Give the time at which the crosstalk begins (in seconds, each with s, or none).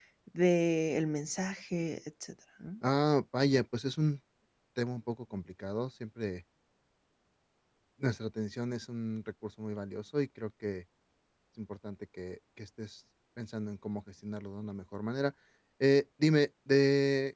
none